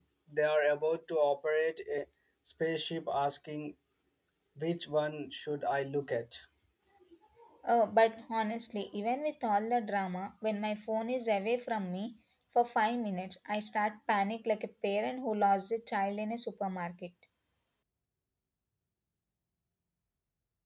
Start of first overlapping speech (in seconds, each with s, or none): none